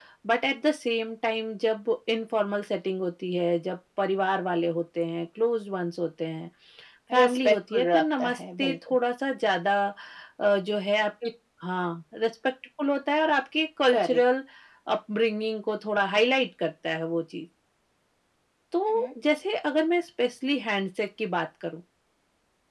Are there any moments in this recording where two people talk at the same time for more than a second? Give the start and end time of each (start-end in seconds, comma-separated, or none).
7.2-9.0